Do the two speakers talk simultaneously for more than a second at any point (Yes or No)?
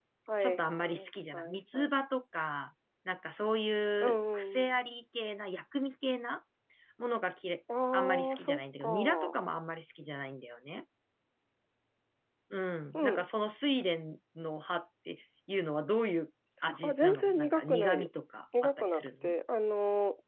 Yes